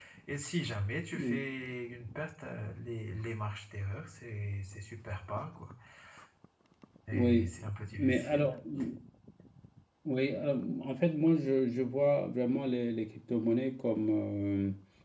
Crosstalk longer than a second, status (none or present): none